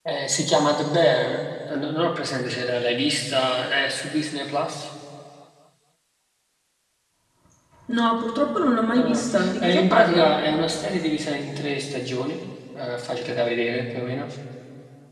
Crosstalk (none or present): present